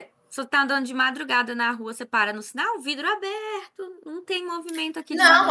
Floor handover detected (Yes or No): Yes